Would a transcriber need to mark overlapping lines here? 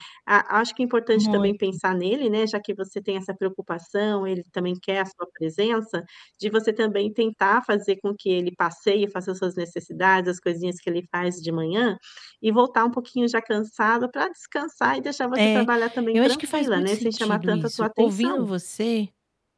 Yes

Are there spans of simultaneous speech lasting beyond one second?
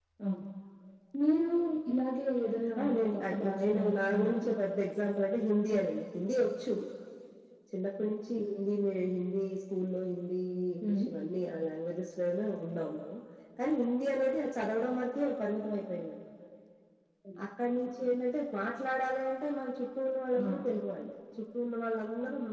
Yes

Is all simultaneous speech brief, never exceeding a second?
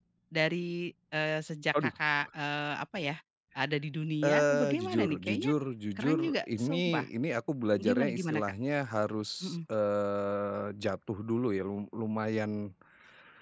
No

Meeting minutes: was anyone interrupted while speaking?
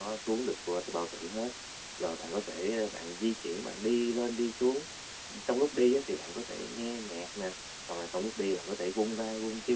No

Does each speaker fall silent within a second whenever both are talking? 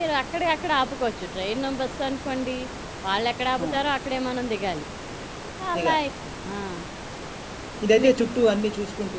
Yes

